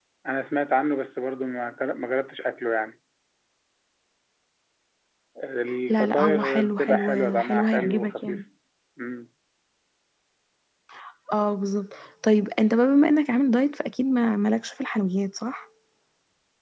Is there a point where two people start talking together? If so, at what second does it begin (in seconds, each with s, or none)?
5.9 s